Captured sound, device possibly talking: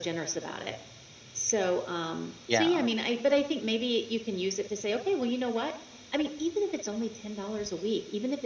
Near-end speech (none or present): present